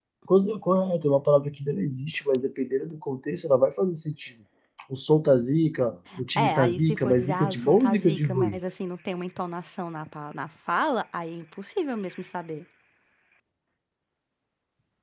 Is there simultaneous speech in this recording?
Yes, from 6.4 s

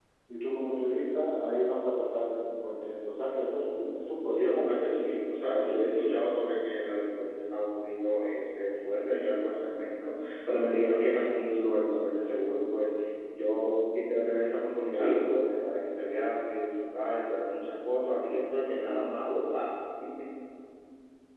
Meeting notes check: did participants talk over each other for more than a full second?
No

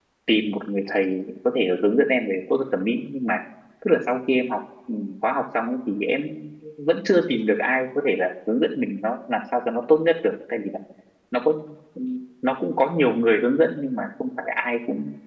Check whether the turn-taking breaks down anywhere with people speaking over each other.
No

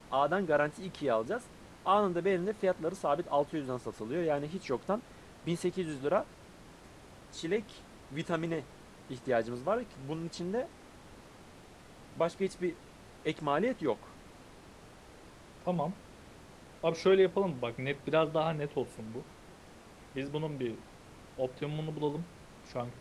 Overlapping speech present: No

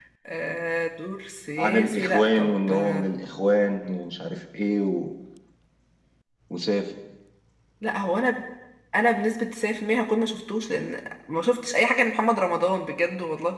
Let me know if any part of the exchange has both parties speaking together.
Yes, from 1.6 s

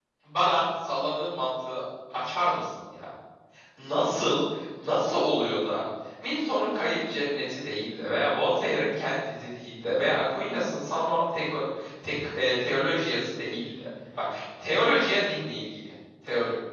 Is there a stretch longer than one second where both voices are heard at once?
No

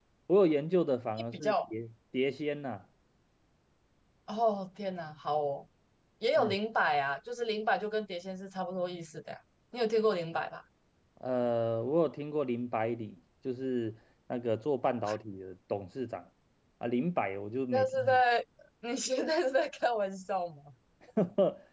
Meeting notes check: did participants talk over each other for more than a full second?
No

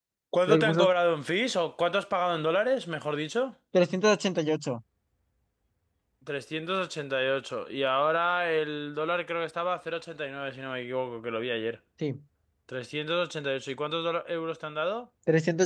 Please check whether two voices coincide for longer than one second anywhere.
No

